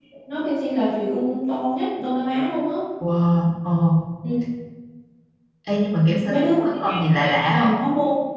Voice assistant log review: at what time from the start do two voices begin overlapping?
6.3 s

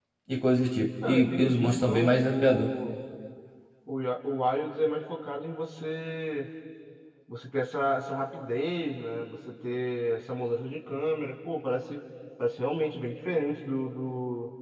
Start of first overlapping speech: 1.0 s

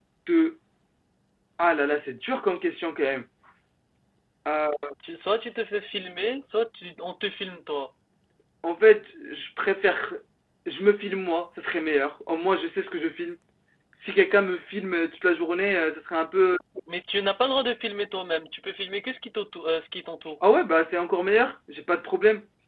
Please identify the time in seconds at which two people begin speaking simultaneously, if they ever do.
none

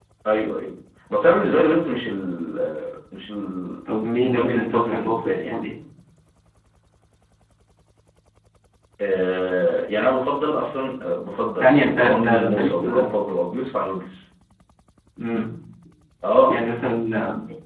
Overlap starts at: 3.9 s

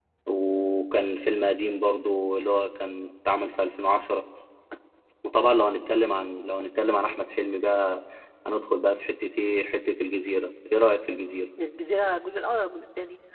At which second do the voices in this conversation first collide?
none

